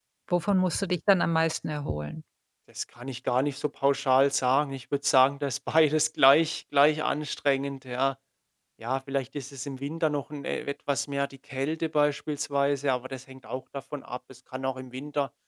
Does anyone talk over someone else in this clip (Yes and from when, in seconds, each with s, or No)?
No